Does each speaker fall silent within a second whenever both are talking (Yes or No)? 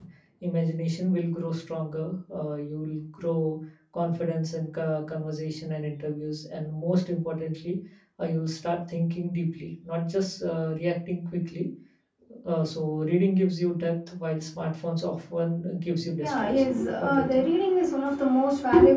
No